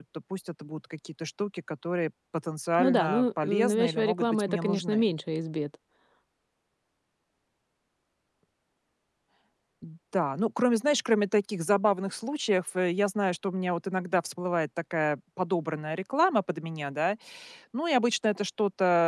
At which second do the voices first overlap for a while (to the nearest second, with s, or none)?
3 s